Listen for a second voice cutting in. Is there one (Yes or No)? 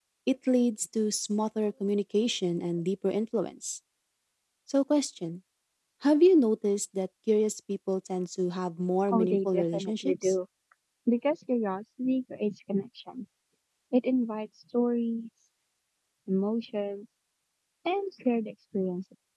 Yes